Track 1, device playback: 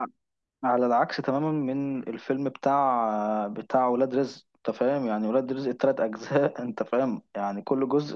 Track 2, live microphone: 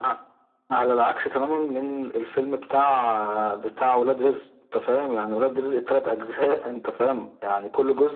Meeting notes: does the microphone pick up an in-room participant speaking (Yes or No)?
No